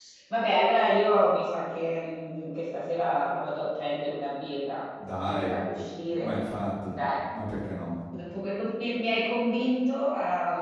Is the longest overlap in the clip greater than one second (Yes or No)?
No